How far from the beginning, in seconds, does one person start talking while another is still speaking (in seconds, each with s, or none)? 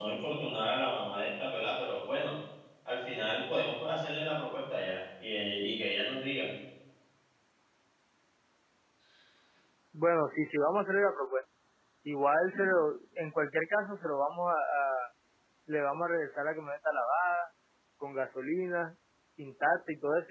none